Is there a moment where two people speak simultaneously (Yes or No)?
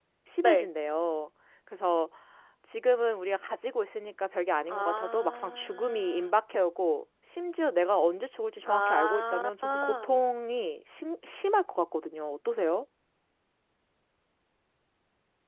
Yes